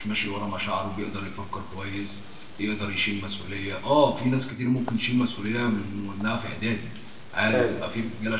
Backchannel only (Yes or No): Yes